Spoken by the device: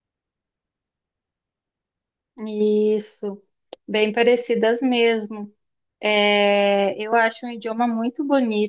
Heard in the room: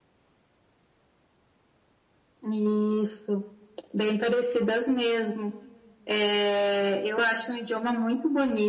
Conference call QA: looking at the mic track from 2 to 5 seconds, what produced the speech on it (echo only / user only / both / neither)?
echo only